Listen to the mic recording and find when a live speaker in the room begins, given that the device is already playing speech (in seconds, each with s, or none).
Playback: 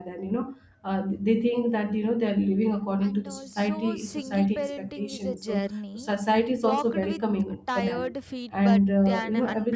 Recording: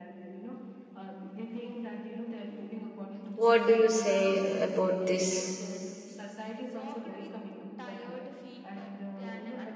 3.3 s